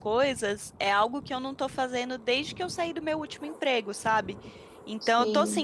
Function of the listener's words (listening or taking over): listening